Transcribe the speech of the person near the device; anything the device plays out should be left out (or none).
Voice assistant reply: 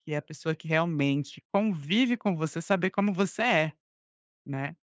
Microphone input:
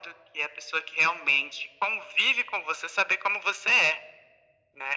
none